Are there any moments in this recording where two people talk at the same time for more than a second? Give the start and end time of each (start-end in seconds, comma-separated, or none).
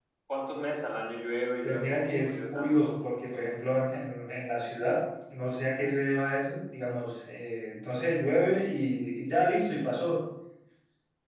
1.6-2.9